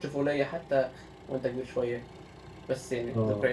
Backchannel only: Yes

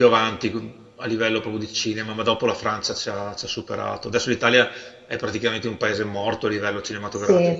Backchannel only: No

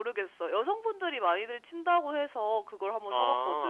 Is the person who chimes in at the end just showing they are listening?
No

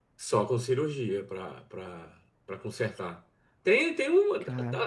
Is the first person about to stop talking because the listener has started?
No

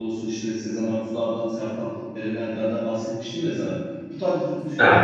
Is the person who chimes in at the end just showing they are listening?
Yes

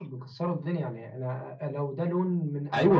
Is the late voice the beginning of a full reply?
Yes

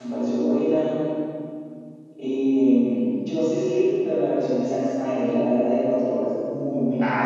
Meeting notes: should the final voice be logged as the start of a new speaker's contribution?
Yes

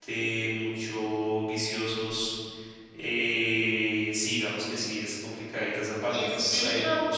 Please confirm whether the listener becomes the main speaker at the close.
Yes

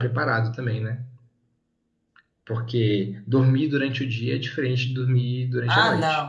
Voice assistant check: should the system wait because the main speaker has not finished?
No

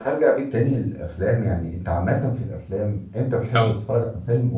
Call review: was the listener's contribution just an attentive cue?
Yes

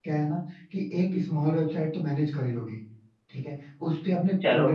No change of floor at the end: Yes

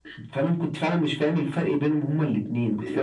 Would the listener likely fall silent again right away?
No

